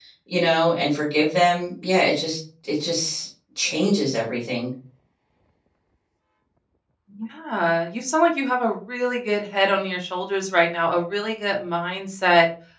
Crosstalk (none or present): none